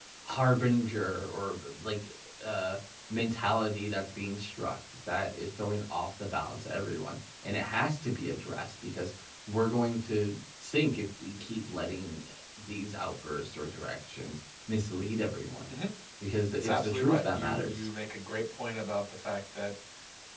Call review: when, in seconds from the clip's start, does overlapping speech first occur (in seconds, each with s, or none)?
16.5 s